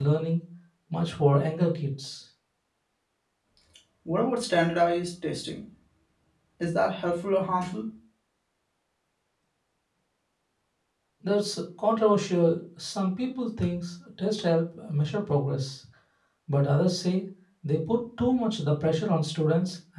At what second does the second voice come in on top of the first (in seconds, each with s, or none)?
none